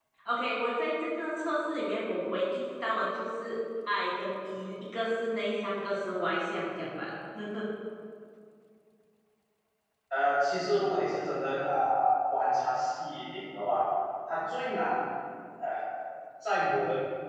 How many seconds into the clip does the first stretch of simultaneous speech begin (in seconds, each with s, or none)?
none